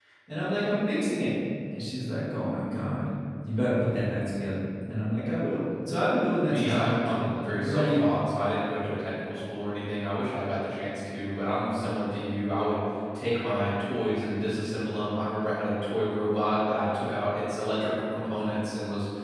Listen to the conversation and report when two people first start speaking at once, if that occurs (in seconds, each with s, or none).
6.5 s